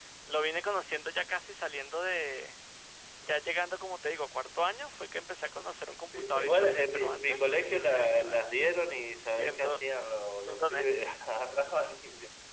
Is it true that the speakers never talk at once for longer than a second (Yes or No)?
No